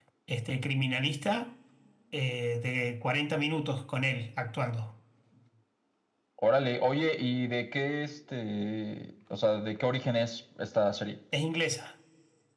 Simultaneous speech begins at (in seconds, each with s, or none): none